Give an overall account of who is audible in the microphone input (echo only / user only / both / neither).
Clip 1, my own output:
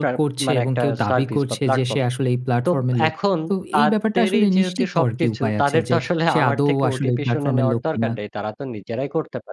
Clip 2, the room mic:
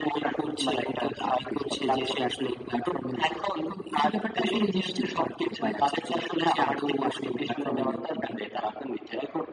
echo only